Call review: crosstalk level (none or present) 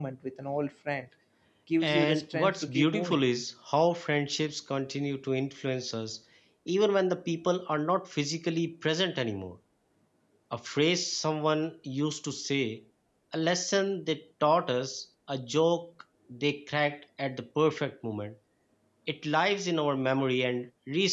present